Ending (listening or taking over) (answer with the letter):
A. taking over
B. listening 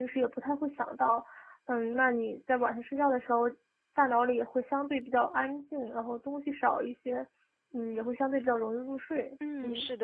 A